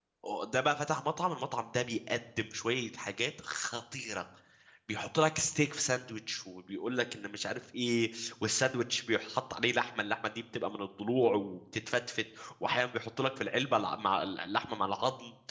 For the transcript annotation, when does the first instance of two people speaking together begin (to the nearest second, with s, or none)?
none